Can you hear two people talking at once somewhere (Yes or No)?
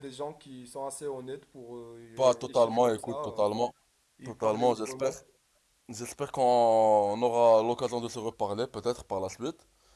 Yes